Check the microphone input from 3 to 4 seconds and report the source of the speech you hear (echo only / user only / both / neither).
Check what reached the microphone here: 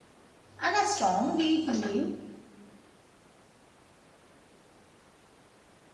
neither